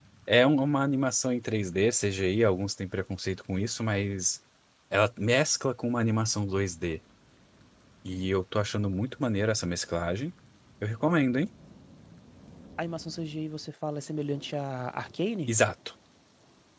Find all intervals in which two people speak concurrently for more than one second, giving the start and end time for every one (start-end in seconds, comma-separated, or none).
none